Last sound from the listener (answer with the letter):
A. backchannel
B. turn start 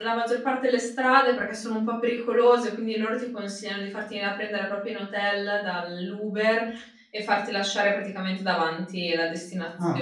B